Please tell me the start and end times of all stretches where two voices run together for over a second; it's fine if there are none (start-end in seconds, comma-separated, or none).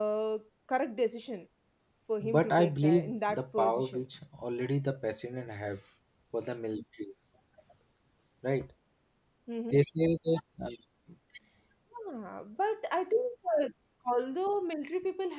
2.2-4.0